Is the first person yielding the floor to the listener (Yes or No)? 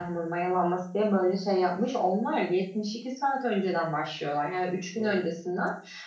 No